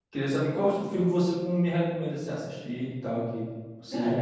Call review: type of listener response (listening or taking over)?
taking over